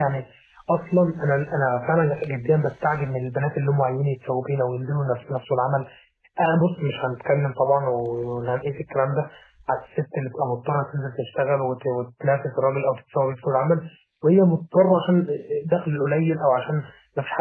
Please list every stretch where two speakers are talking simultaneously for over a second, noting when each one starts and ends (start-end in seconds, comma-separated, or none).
none